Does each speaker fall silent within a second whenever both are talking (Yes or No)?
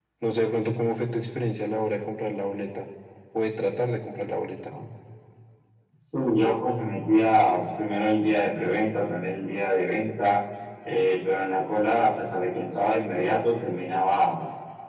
Yes